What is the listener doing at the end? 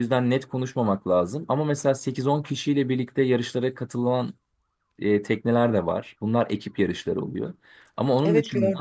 listening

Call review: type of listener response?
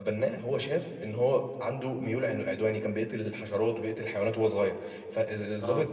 listening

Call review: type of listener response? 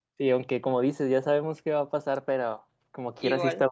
listening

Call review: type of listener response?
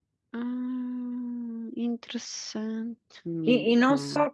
taking over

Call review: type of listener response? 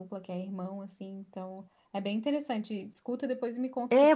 taking over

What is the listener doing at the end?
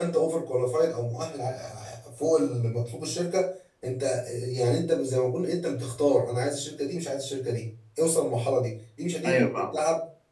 listening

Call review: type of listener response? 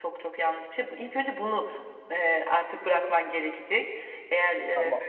listening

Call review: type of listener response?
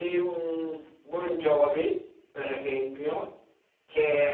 listening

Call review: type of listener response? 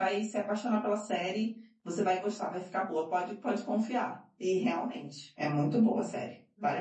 taking over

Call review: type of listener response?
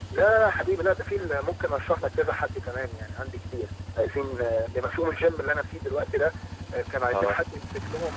listening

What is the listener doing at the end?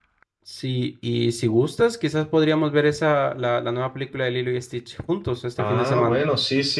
taking over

